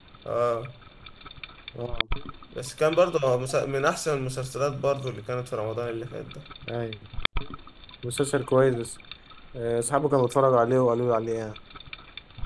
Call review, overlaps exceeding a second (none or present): none